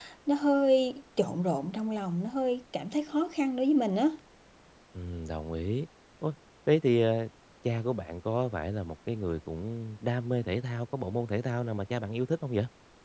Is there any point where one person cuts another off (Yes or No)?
No